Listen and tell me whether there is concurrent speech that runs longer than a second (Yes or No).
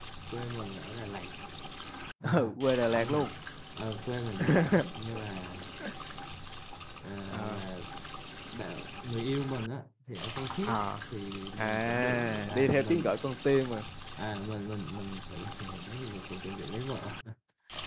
Yes